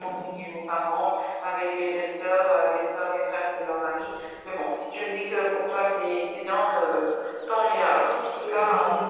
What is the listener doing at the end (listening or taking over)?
taking over